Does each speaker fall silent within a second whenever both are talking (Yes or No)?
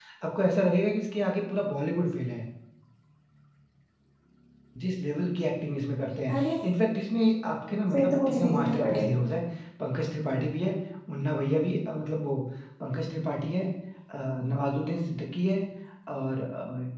No